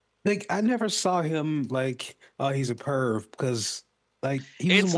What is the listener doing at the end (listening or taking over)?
listening